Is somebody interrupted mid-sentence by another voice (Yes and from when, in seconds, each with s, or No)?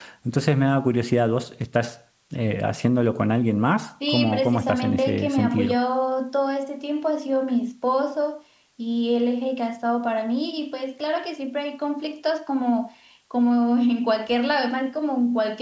Yes, from 4.0 s